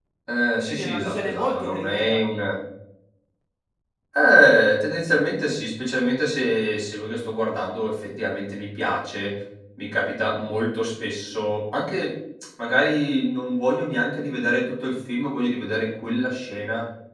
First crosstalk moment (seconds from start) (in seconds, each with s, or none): 0.7 s